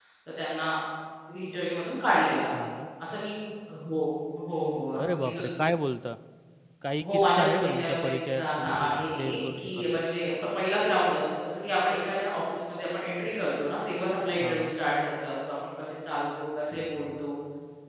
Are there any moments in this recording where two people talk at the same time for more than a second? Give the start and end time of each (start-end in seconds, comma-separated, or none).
7.0-10.0